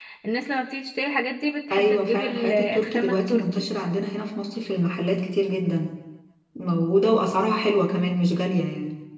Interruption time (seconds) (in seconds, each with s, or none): 1.7 s